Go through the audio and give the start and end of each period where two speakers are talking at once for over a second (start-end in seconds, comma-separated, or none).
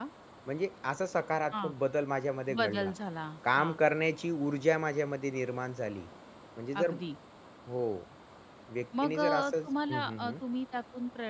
9.0-10.3